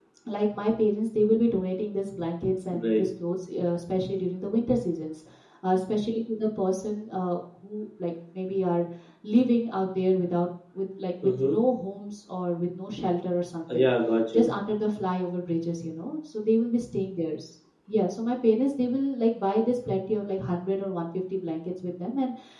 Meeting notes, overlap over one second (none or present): none